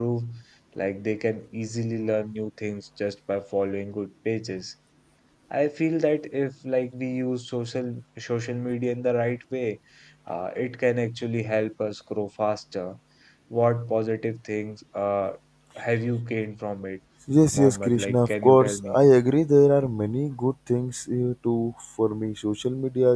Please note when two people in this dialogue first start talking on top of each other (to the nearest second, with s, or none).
18 s